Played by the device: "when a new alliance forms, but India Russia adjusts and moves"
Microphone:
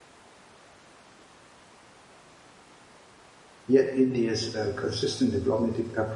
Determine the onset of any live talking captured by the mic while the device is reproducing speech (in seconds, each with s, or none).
3.6 s